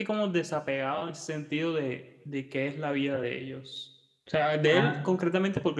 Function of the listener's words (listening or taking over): listening